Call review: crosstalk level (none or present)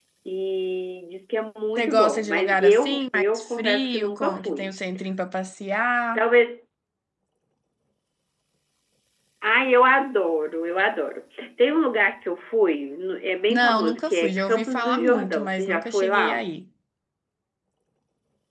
present